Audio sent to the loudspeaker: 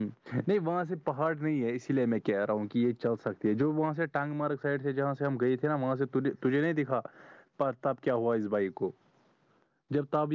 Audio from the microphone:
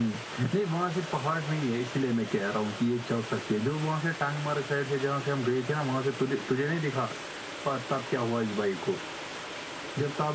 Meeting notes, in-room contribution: none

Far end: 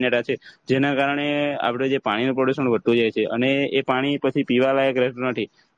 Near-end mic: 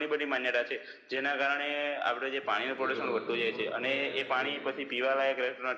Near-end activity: present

